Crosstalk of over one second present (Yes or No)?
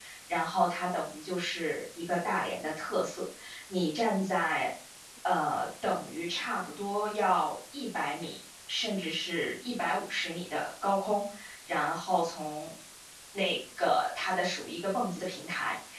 No